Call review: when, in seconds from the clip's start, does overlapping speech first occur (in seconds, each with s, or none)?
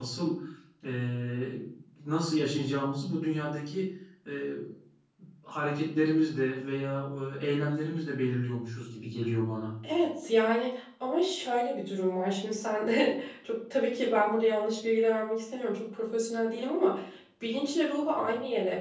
none